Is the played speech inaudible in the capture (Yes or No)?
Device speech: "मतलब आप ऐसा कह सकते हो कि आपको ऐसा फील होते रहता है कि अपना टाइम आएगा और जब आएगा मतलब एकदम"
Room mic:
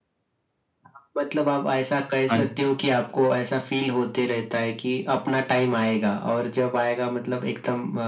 No